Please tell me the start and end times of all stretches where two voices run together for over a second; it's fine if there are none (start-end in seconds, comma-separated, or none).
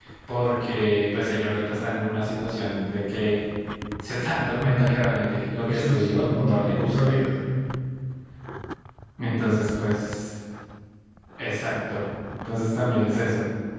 5.7-7.1